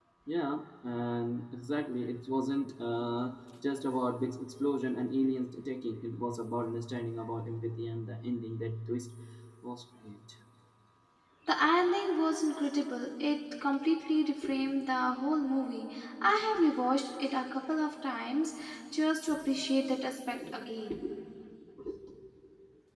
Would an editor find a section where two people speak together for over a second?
No

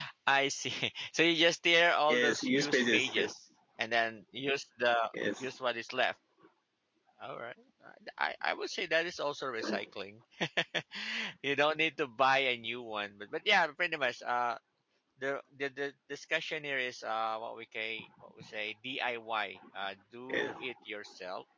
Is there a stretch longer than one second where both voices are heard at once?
Yes, from 2.1 s

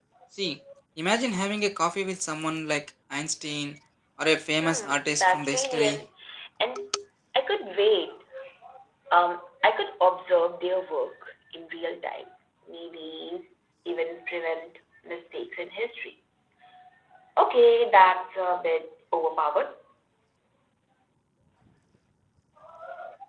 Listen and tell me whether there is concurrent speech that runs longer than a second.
Yes, from 4.6 s

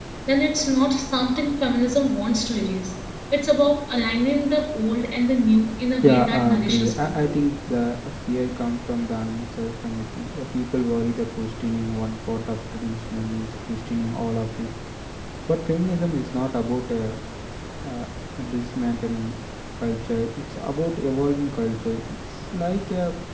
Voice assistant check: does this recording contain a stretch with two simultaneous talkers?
Yes, from 6.0 s

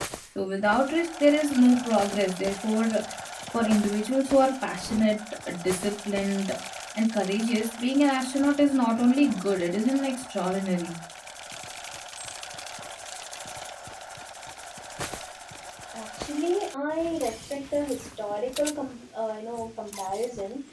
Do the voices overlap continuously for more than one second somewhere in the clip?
No

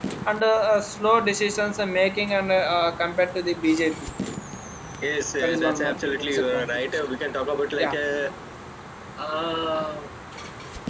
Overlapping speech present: Yes, from 5.4 s

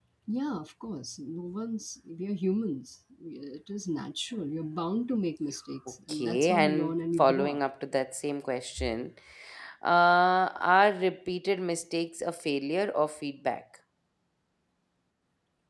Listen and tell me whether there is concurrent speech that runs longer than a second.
Yes, from 6.1 s

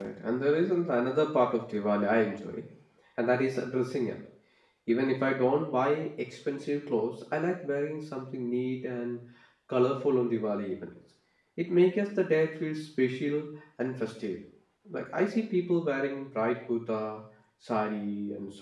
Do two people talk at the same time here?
No

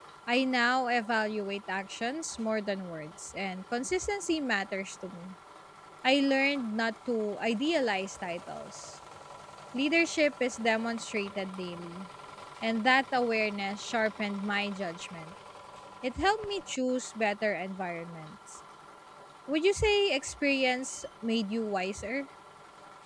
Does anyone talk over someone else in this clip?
No

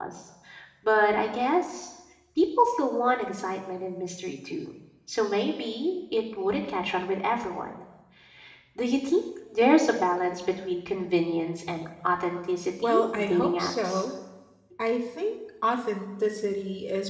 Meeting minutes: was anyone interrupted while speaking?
Yes, from 12.8 s

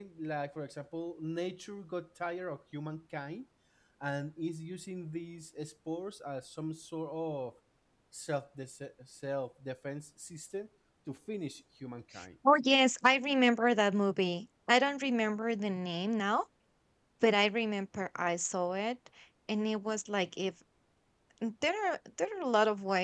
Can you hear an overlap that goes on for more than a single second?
No

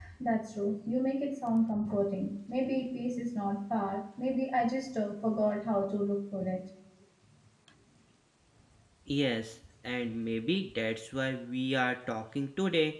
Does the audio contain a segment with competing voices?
No

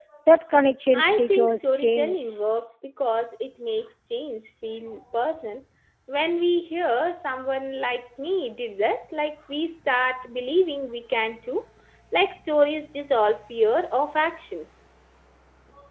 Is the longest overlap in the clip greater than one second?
Yes, from 1.0 s

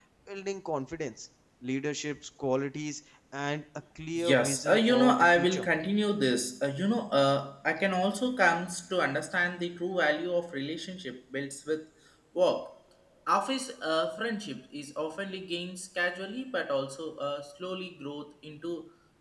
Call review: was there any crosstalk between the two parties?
Yes, from 4.2 s

